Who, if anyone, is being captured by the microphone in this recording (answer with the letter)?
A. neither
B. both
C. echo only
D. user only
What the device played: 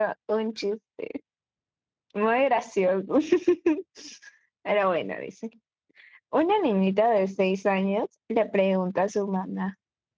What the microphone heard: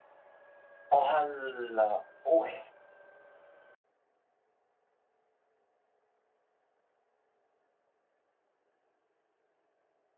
D